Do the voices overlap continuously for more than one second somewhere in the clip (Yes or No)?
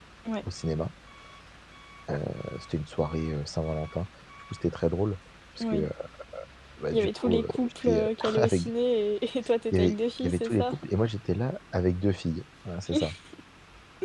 Yes